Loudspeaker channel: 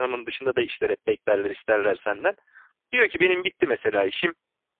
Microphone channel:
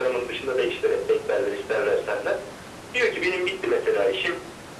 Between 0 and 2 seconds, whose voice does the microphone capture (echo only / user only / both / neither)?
echo only